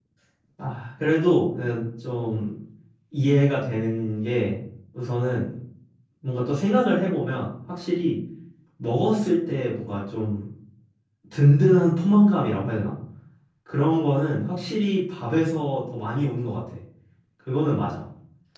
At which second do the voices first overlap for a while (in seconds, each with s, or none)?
none